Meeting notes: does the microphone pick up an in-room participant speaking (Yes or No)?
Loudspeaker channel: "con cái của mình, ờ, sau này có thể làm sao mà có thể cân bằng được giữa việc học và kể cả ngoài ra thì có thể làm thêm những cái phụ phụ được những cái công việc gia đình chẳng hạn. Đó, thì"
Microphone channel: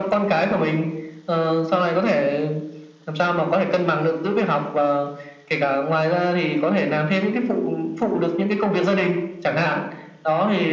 No